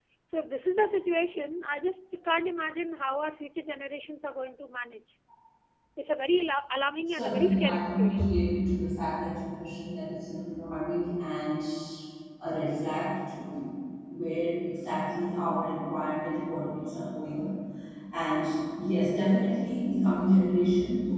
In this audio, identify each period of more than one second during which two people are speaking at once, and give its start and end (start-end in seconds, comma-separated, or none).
7.1-8.4